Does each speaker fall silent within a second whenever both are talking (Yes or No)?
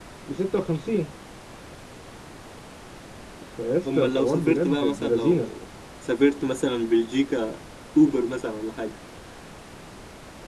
No